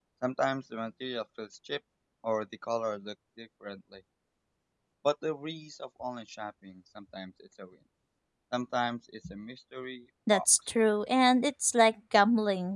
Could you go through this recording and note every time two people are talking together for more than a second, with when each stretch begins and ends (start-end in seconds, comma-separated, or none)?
none